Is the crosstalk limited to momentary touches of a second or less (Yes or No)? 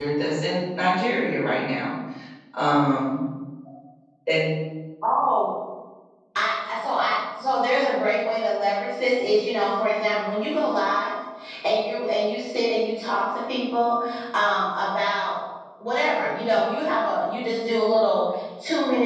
Yes